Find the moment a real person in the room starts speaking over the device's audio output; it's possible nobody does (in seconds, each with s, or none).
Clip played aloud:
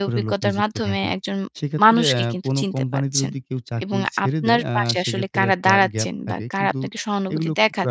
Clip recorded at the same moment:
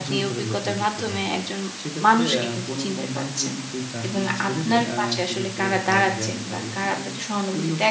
none